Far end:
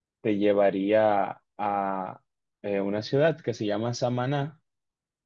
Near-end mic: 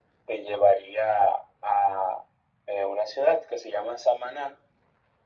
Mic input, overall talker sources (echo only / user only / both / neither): echo only